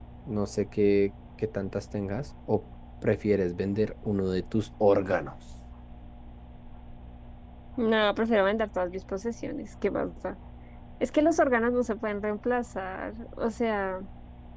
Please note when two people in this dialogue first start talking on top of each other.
none

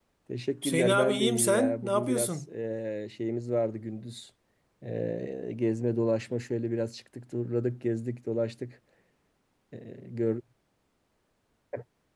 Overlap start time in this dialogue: 0.6 s

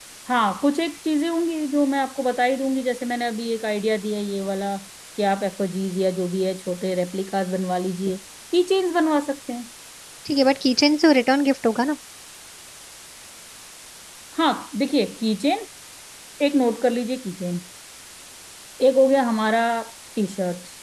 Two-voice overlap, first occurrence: none

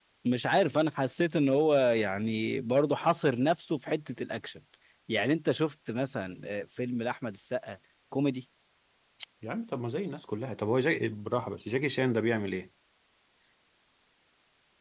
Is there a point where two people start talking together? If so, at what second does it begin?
none

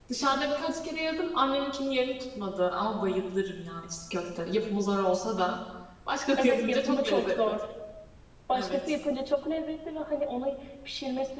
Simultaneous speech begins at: 6.4 s

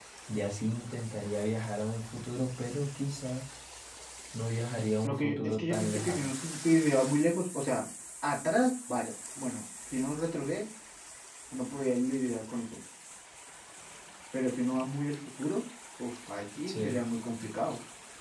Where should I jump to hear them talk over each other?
5.0 s

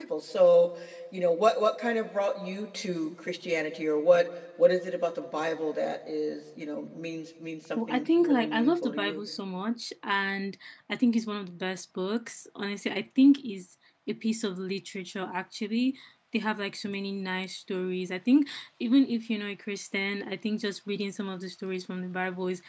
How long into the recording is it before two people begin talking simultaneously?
7.8 s

